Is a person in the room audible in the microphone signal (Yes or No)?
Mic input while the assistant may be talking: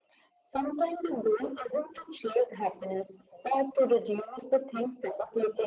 No